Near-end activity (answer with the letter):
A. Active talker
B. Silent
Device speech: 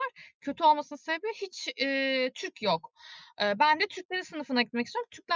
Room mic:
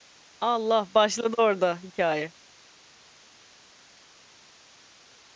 A